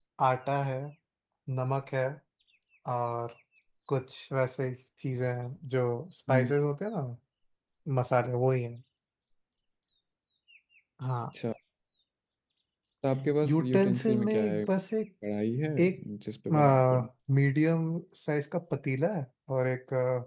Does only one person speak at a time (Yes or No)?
No